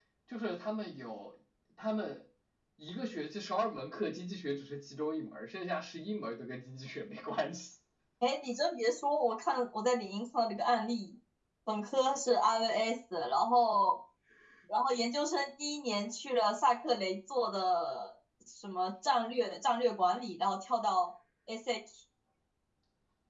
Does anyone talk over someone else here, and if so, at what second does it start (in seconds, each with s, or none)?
none